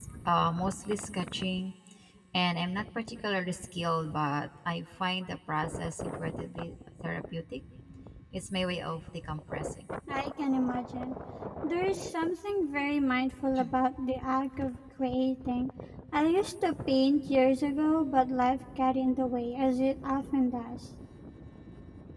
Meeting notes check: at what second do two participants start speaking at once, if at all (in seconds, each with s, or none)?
none